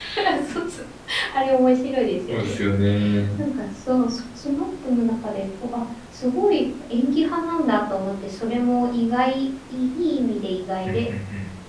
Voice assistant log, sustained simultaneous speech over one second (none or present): none